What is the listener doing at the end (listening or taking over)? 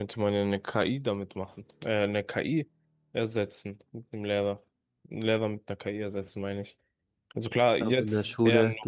taking over